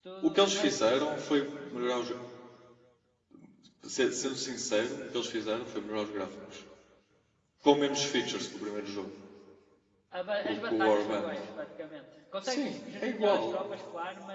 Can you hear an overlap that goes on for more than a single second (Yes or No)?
Yes